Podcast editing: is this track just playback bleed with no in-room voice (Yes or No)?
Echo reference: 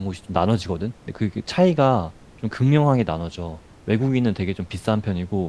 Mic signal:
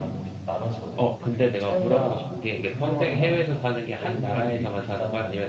No